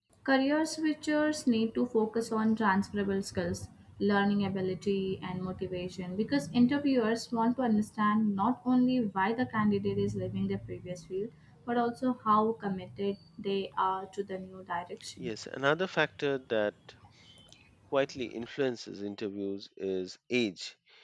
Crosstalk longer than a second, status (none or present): none